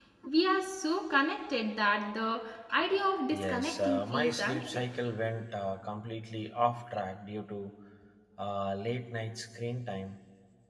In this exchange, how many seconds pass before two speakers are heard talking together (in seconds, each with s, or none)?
3.3 s